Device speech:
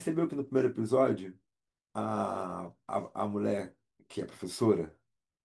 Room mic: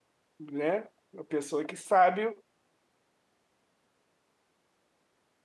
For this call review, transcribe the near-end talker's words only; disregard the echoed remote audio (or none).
né? A pessoa que sabe,